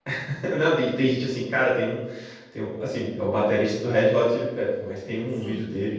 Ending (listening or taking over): listening